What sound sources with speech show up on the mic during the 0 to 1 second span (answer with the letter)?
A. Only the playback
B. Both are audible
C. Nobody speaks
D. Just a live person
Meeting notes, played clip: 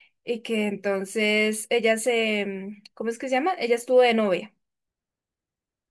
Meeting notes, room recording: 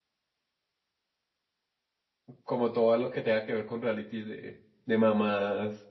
C